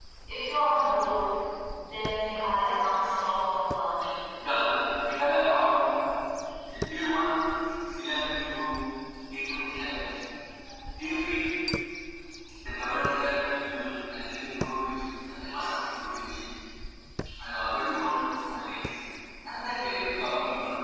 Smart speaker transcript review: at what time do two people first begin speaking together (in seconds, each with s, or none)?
none